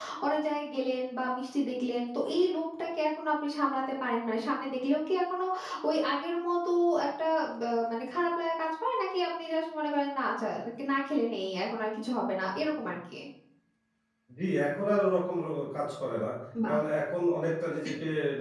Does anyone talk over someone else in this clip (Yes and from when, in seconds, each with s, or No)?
No